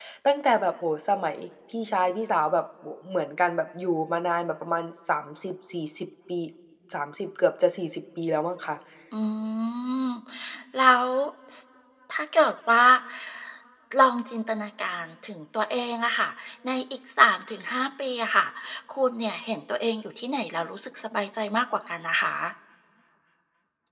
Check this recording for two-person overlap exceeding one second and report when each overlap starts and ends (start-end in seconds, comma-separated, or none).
none